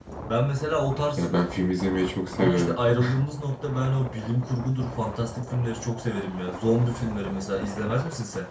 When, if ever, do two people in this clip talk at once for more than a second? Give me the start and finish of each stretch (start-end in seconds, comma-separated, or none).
none